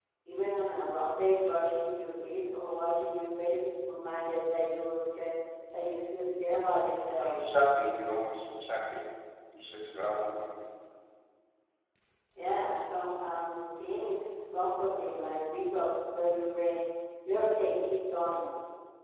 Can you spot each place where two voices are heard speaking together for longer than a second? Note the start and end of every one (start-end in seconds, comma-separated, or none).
none